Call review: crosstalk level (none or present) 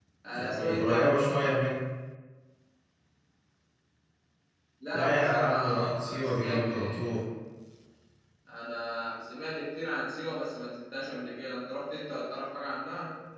present